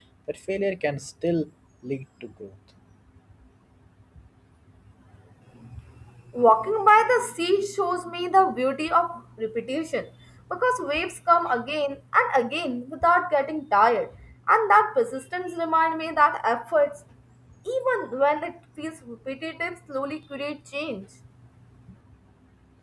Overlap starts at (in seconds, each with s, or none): none